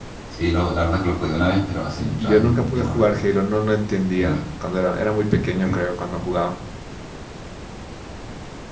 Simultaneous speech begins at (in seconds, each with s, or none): 2.0 s